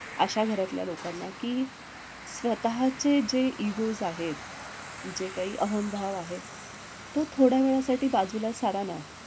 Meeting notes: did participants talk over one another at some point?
No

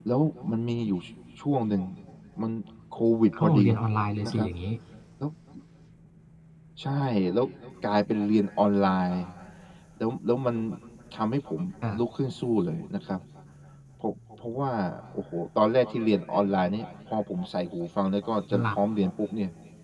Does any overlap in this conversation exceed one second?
No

